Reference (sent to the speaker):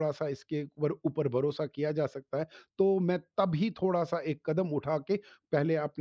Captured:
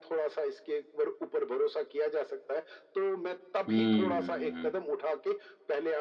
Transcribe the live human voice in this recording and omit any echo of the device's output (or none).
हुँ।